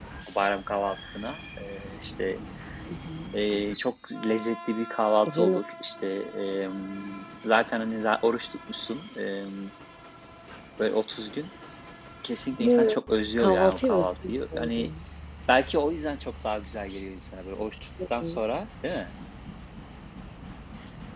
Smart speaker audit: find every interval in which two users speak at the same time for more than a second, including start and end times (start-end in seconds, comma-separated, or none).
13.4-14.9